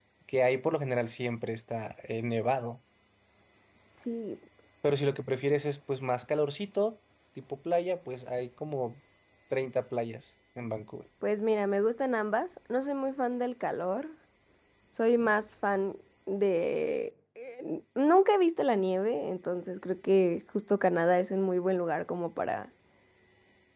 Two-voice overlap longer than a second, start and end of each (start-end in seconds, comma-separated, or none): none